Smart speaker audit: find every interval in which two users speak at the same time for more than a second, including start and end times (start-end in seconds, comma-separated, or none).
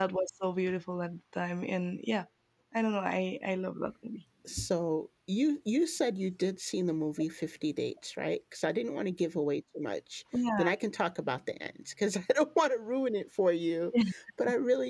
none